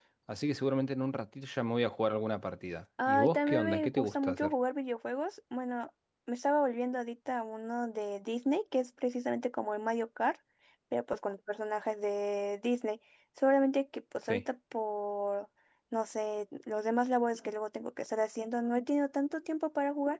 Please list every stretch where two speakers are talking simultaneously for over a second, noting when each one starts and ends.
3.0-4.5

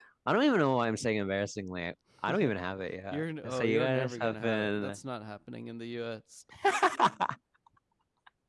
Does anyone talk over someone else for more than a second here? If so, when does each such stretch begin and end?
3.1-5.0

